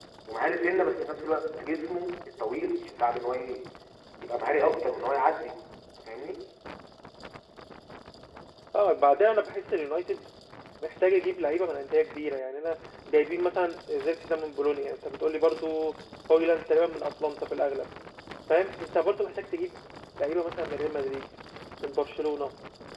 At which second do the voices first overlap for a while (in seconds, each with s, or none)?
none